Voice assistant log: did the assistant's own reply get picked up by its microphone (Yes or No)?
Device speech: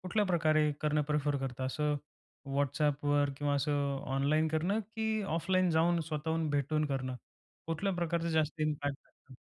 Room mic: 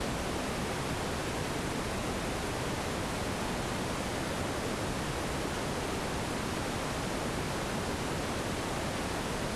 No